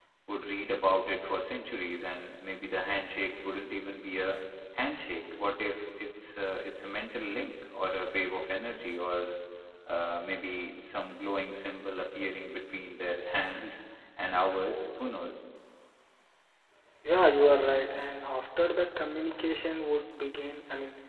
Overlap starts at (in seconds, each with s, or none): none